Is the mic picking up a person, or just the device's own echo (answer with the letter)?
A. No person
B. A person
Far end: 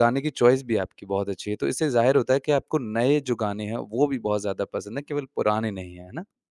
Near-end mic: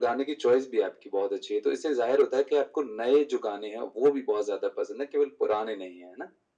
A